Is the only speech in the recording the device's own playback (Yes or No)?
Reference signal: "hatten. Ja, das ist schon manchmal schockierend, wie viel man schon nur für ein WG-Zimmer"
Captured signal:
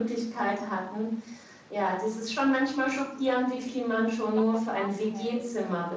No